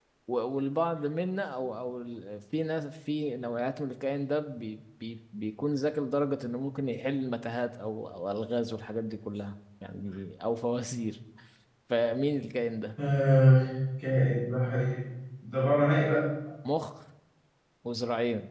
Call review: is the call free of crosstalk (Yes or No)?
Yes